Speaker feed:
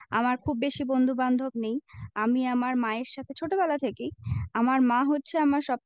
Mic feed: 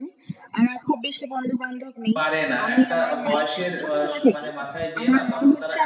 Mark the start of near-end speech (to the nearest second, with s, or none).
2 s